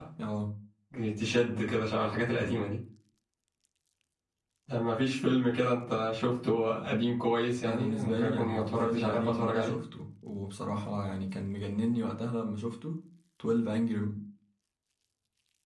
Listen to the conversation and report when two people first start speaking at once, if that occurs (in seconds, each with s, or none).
7.6 s